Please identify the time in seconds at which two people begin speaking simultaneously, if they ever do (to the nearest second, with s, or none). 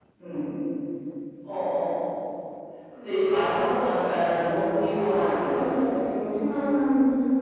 4 s